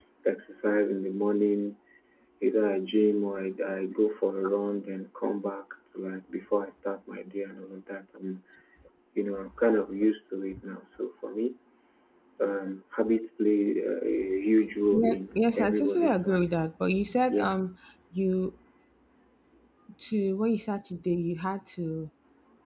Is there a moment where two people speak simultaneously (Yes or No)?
Yes